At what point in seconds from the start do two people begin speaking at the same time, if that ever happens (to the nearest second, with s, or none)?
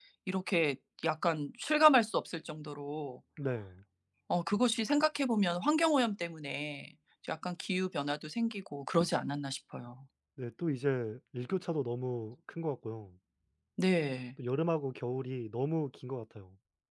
none